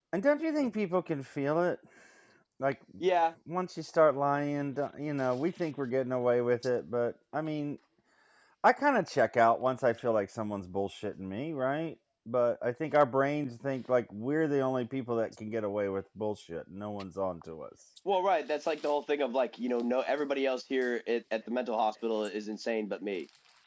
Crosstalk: none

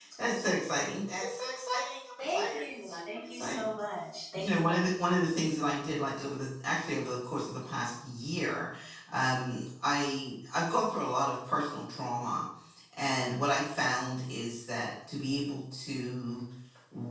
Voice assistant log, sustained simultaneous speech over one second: present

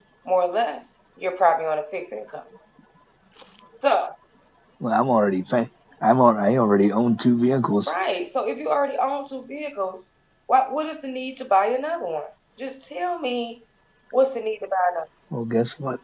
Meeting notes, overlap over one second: none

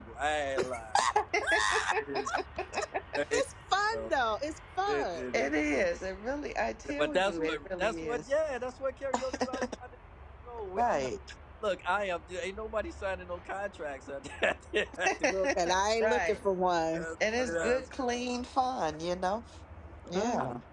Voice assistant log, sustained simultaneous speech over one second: present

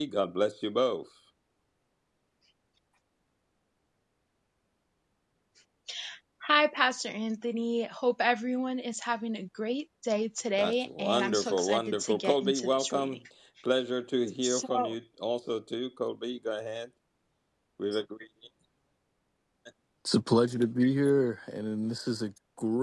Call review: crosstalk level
present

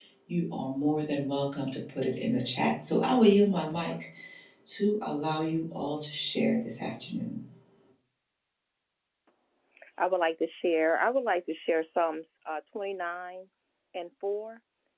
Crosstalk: none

